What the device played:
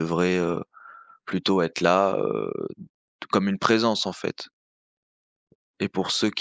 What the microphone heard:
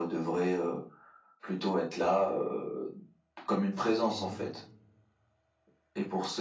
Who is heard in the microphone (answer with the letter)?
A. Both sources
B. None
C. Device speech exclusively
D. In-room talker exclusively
A